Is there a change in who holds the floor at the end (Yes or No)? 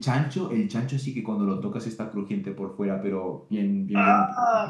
No